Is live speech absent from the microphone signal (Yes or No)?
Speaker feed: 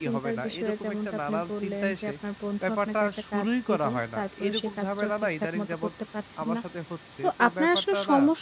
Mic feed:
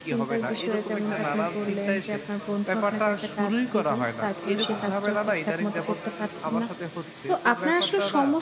No